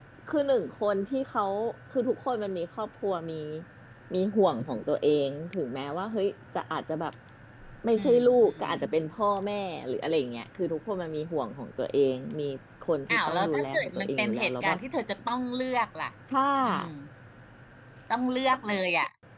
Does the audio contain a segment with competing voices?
Yes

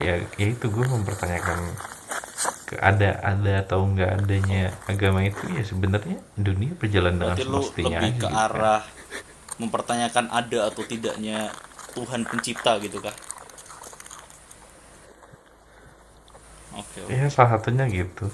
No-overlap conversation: No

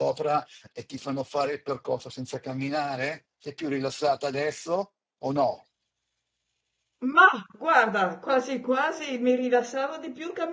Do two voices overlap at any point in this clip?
No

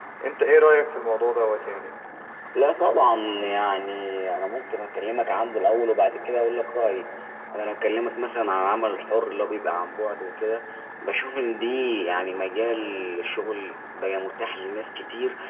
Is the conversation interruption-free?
Yes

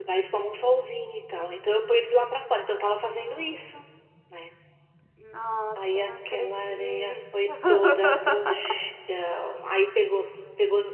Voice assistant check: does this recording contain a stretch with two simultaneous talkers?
Yes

